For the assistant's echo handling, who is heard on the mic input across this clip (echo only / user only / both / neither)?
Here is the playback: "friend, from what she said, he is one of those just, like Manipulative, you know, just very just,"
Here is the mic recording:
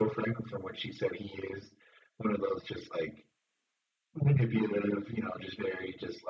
echo only